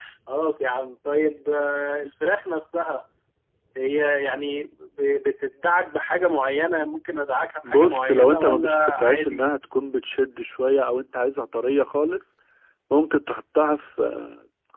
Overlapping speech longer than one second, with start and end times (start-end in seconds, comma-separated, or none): 7.6-9.4